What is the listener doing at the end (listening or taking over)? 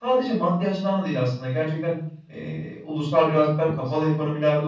listening